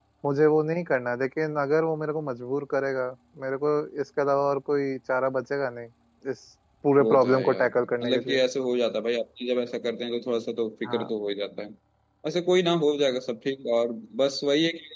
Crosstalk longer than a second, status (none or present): present